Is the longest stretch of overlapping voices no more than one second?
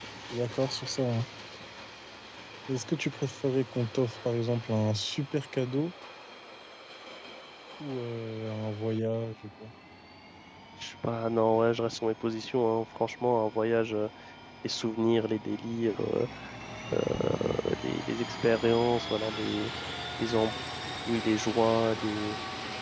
Yes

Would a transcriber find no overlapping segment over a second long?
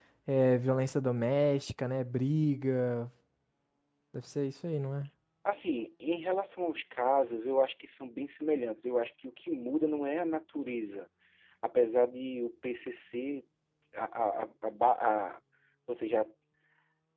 Yes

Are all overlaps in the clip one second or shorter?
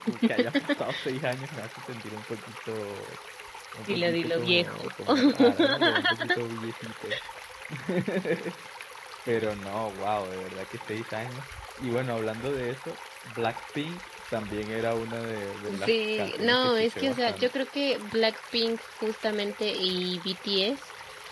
No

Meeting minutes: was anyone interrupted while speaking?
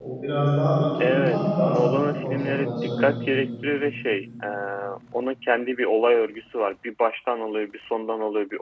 Yes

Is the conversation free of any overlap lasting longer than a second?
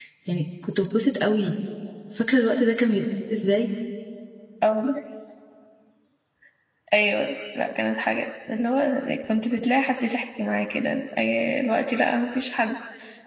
Yes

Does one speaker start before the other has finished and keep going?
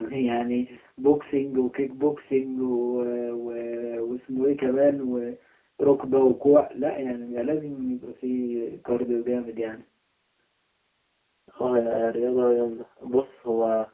No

